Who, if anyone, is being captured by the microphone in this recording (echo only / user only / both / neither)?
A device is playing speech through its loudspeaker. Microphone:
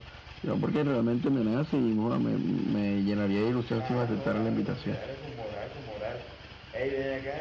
both